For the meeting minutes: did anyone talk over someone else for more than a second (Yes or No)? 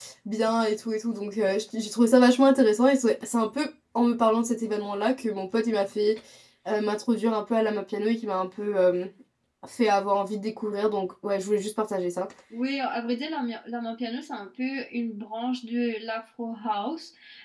No